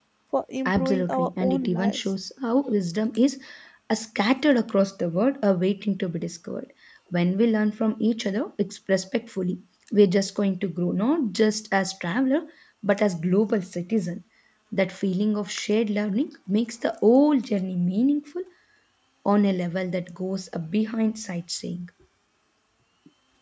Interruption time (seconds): 0.7 s

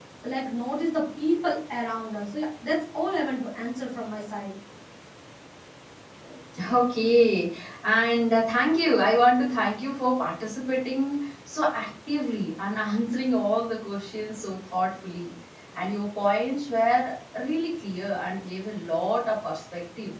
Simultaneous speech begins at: none

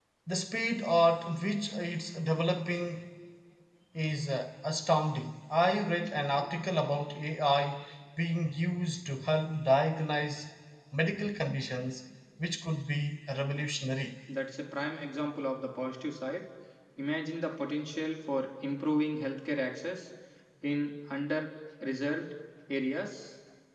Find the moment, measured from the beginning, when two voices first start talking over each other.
none

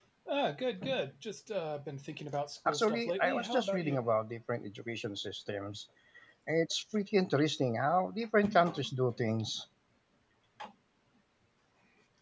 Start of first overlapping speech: 2.7 s

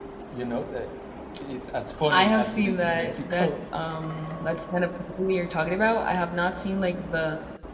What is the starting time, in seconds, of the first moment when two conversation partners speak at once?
2.1 s

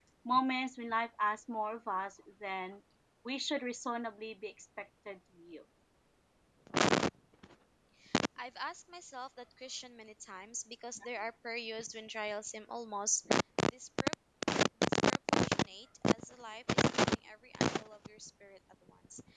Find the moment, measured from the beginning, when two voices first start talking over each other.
none

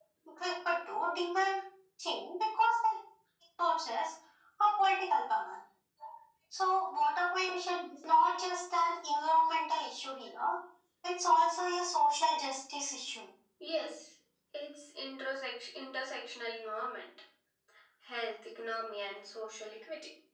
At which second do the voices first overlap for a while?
none

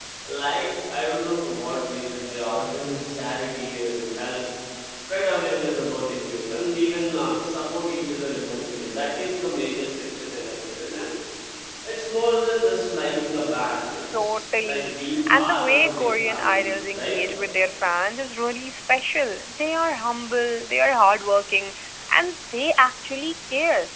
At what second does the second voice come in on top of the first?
14.1 s

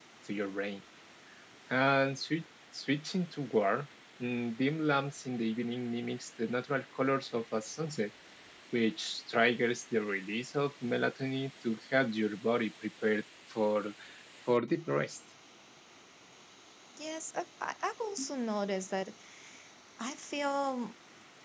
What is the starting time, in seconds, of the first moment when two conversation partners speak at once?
none

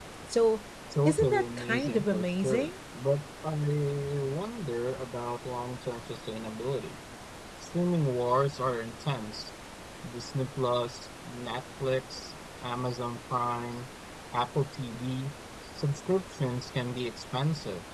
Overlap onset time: 1.1 s

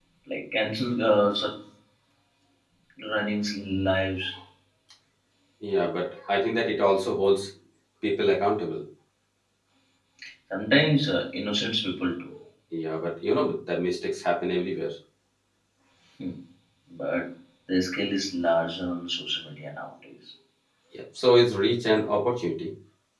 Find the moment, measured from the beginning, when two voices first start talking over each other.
none

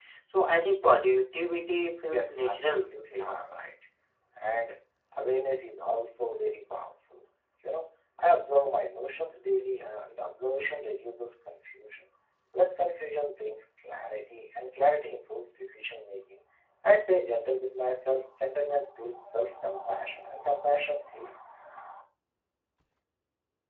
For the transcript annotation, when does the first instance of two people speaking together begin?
2.0 s

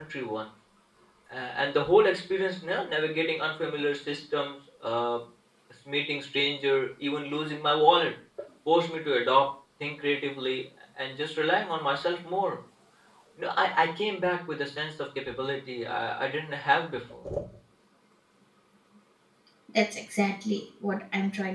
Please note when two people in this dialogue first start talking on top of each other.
none

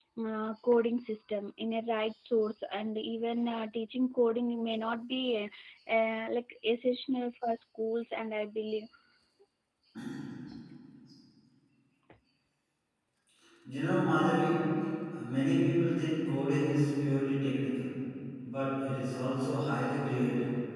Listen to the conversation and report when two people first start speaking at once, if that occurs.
none

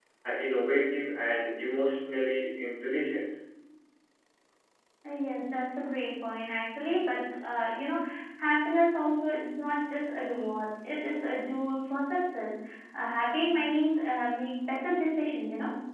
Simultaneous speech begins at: none

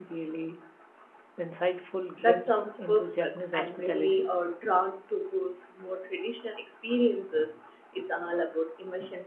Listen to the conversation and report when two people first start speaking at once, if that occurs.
2.2 s

